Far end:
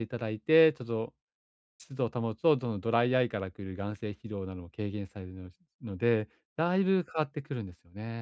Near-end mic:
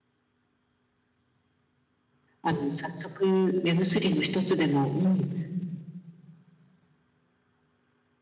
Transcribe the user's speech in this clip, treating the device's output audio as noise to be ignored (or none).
あの、早速、目薬の一つでも、うん、ちょ